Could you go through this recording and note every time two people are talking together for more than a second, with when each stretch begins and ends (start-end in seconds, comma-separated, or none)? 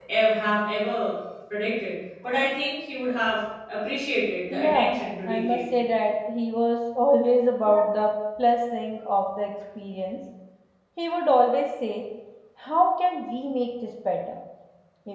4.5-5.7